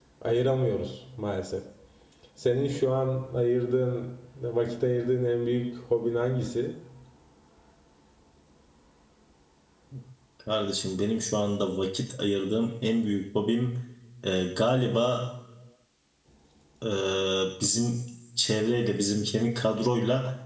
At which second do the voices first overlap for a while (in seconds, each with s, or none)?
none